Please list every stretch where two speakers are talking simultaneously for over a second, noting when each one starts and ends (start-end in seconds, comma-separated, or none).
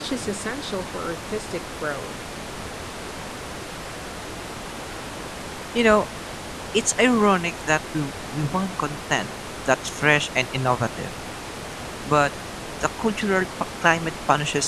none